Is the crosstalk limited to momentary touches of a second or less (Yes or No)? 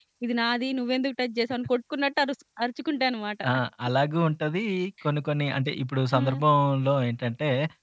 Yes